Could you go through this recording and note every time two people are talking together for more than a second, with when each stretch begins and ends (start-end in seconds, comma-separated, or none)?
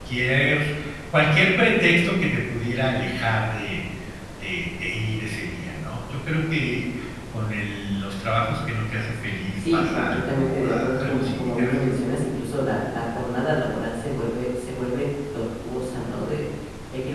9.6-11.7